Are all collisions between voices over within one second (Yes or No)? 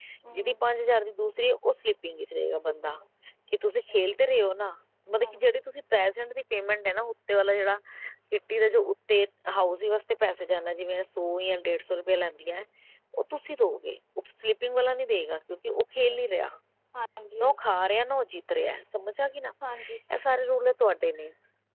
Yes